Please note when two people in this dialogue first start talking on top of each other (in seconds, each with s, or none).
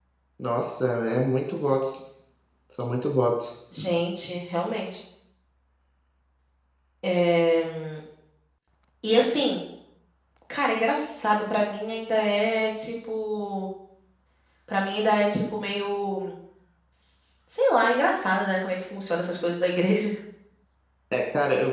none